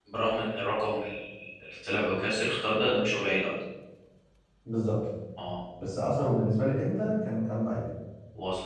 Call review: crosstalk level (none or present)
none